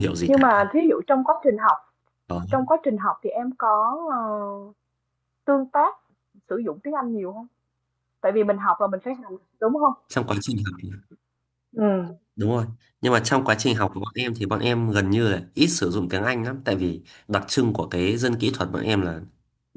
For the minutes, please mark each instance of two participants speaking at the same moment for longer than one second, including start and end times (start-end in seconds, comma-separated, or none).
none